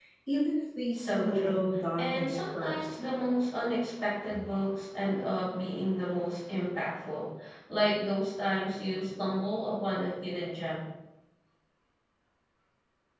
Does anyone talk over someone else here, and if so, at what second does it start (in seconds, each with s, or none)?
0.9 s